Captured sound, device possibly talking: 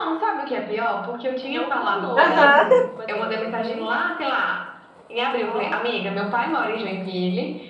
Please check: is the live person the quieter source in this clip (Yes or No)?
No